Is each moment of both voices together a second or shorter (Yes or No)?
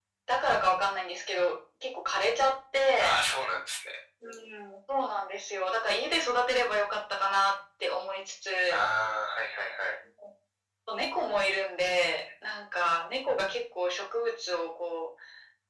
Yes